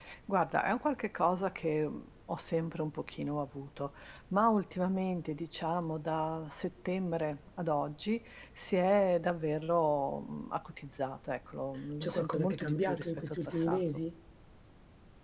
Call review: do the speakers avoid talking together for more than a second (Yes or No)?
No